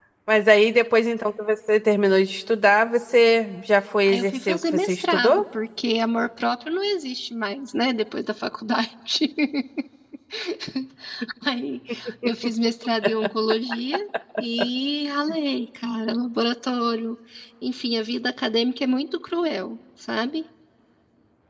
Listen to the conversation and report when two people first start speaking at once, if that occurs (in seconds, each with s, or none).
4.1 s